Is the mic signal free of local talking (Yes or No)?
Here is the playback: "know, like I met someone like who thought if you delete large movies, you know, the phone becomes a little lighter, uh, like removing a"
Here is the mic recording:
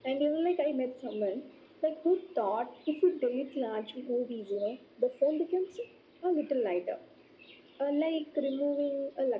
Yes